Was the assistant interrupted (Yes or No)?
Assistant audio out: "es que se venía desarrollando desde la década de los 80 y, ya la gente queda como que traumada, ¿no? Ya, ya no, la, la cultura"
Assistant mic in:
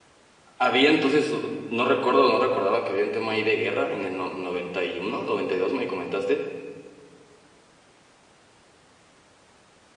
Yes